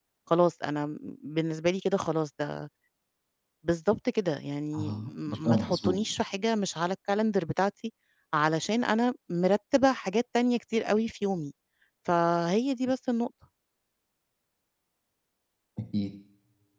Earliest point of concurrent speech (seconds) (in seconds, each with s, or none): 4.7 s